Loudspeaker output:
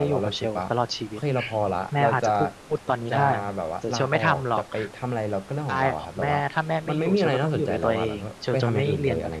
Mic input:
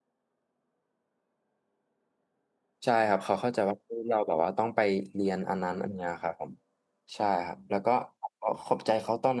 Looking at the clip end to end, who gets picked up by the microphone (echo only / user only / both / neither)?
user only